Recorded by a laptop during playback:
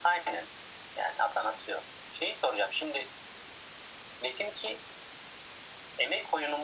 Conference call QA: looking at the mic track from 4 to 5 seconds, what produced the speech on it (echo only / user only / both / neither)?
echo only